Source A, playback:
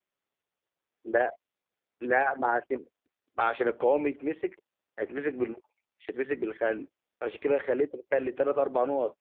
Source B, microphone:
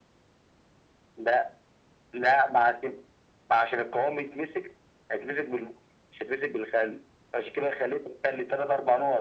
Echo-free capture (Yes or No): No